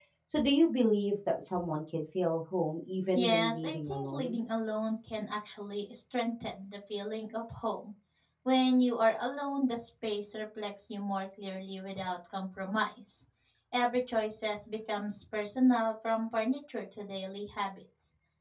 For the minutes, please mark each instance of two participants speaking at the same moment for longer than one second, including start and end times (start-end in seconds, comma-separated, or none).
3.1-4.4